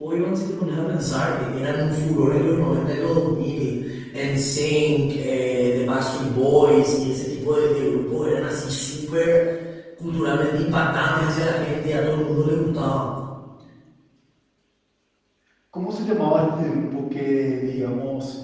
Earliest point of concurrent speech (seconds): none

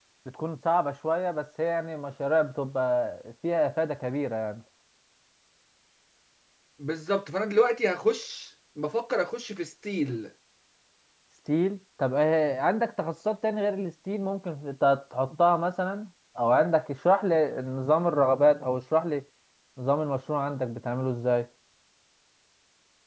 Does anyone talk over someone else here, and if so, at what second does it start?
none

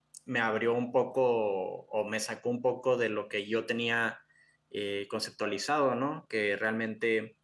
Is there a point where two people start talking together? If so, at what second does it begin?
none

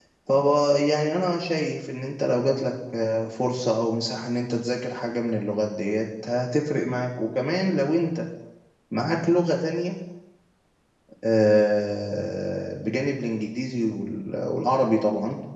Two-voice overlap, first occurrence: none

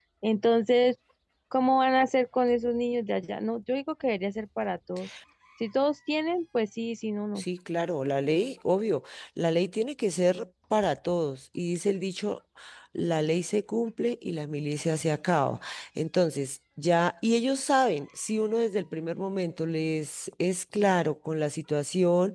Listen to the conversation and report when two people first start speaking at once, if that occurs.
none

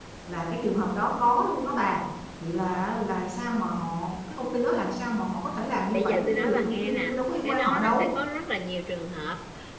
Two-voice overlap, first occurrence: 5.9 s

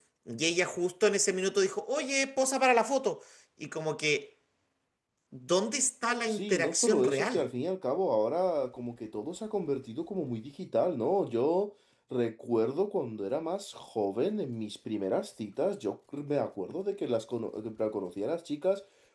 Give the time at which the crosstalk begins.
6.3 s

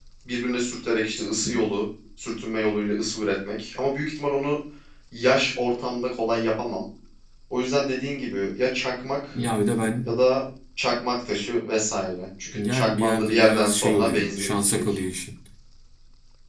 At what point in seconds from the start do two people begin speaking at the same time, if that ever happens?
12.5 s

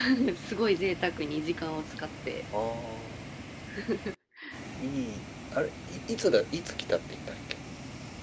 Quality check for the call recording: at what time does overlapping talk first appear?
none

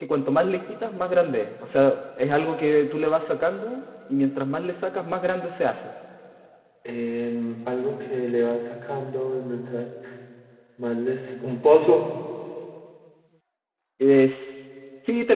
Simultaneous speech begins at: none

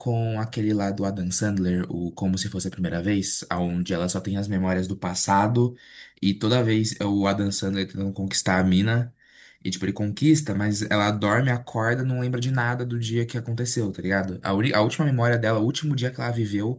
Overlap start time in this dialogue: none

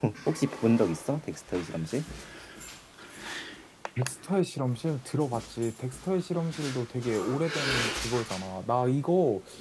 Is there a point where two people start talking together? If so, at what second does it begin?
none

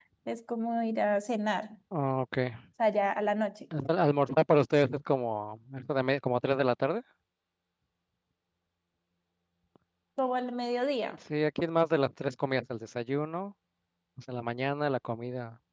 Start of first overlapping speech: none

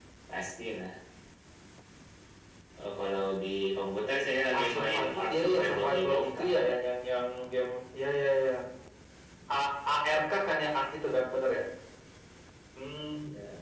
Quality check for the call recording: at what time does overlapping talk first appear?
4.5 s

